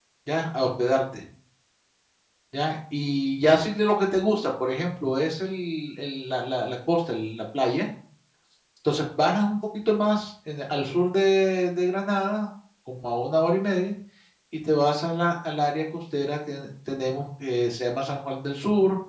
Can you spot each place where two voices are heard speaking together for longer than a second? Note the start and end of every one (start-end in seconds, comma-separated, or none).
none